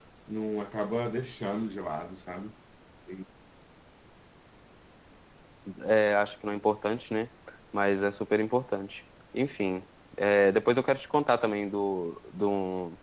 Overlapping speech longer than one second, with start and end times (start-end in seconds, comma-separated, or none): none